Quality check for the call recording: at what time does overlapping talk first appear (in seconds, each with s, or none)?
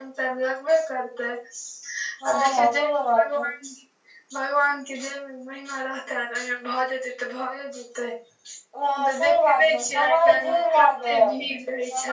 2.3 s